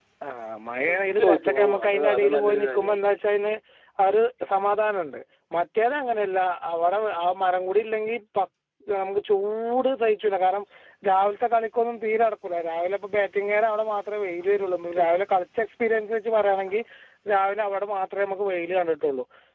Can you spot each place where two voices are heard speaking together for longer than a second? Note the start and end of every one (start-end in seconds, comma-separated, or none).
0.9-3.0